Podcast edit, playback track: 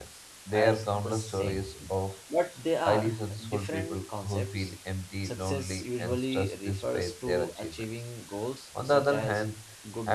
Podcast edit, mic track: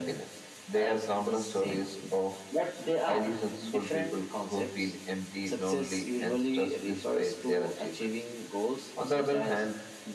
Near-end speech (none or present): none